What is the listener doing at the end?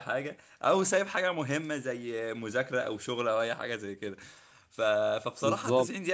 listening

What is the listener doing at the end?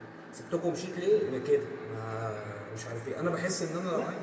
listening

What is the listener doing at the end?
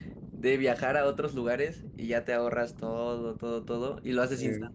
listening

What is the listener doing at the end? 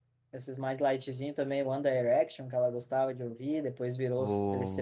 listening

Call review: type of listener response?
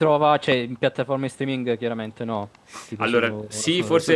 taking over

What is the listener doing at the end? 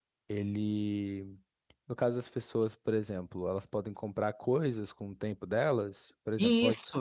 taking over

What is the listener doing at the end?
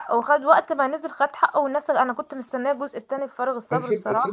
taking over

